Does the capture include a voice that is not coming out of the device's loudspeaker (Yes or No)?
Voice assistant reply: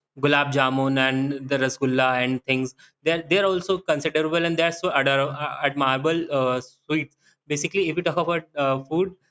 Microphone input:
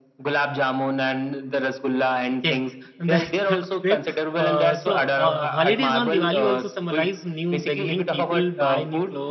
Yes